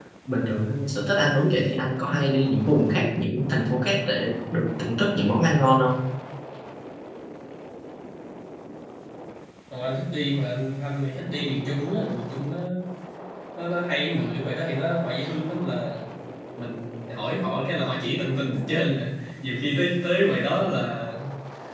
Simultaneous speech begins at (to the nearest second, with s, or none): none